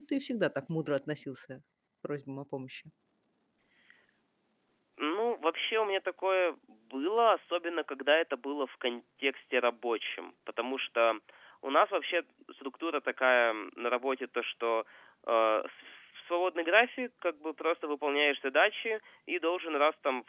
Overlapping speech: No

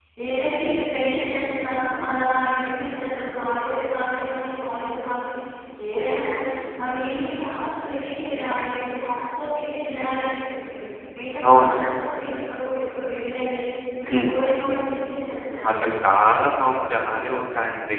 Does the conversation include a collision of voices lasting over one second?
No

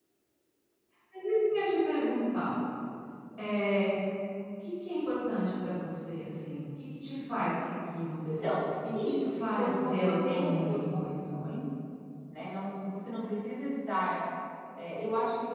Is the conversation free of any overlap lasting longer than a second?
No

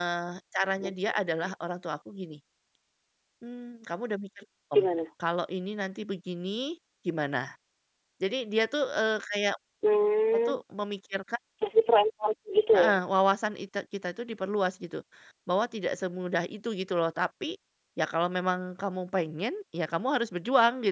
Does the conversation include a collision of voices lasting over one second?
No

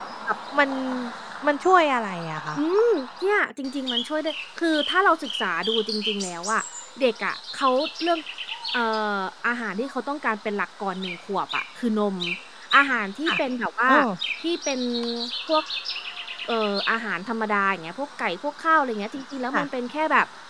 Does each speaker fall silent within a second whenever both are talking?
Yes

